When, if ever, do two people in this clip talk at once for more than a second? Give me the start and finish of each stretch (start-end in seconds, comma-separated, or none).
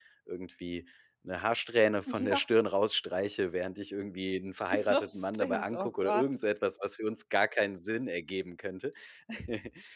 4.9-6.3